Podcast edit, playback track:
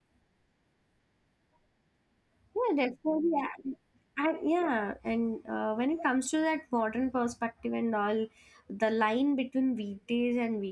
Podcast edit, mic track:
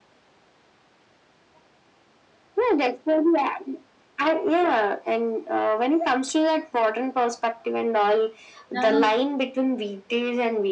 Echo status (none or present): present